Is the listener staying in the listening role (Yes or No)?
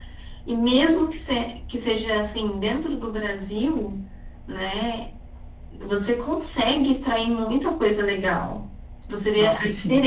Yes